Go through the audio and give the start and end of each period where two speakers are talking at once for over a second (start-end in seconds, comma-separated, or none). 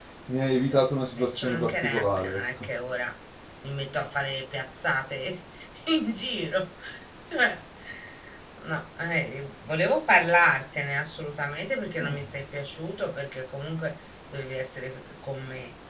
1.2-2.7